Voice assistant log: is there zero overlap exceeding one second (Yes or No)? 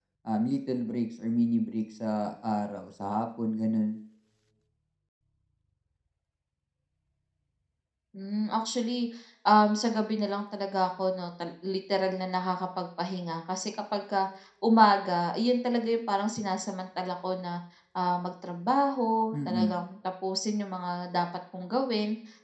Yes